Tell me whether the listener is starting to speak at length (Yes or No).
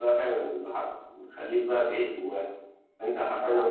No